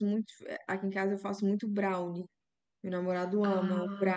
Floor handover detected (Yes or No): No